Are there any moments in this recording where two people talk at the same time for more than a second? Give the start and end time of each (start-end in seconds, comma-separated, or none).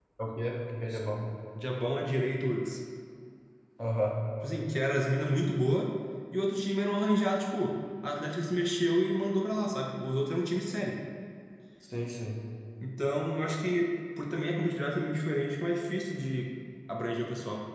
none